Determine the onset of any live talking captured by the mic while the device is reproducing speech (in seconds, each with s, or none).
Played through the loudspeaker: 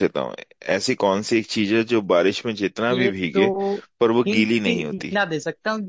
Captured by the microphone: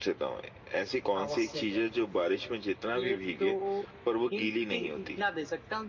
1.2 s